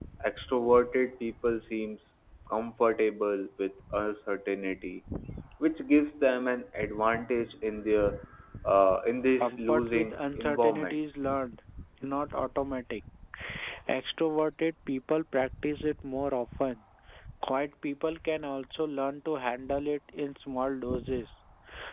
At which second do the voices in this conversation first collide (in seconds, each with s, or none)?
9.4 s